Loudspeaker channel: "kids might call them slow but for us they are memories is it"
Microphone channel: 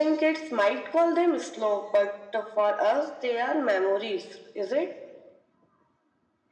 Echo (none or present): present